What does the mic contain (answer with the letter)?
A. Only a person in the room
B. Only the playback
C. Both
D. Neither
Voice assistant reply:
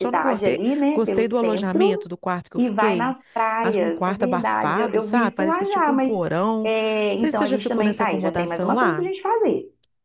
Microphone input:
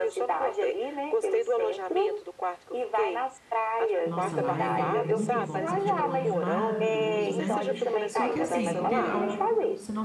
C